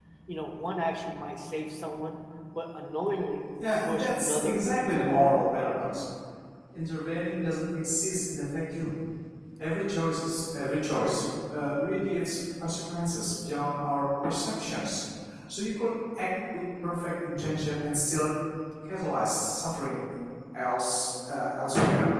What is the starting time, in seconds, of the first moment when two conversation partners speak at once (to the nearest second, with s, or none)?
4 s